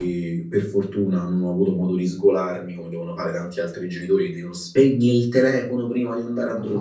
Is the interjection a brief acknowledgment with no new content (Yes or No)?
No